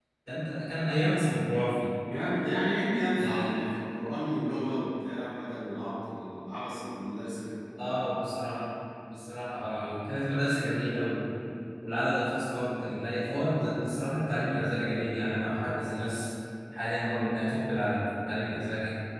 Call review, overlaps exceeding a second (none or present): none